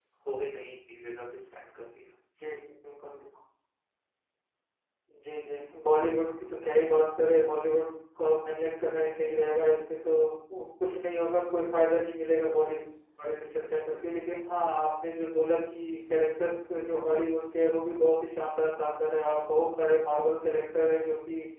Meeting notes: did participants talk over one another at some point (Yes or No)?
No